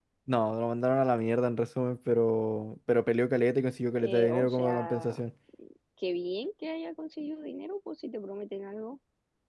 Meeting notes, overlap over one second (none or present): present